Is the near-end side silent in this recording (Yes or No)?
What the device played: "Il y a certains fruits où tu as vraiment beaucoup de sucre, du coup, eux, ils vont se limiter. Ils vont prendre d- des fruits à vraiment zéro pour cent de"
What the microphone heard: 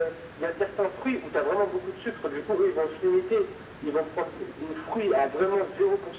Yes